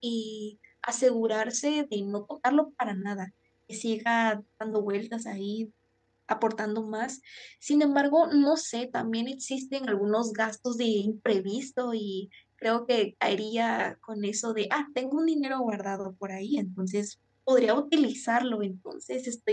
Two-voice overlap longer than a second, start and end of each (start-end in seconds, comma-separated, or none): none